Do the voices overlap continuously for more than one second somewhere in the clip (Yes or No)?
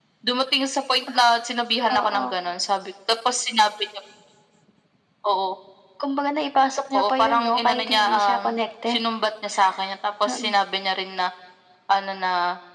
Yes